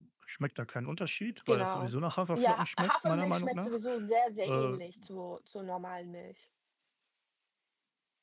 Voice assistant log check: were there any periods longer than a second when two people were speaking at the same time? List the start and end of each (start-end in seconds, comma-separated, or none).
2.3-3.8